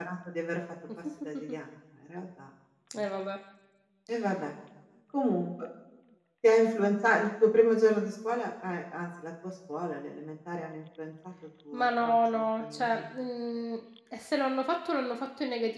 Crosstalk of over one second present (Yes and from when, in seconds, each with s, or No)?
Yes, from 11.7 s